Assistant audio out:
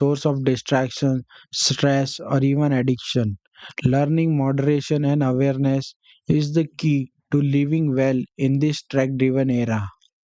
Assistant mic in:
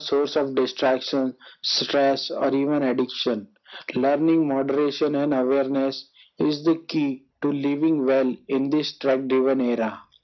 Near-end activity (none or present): none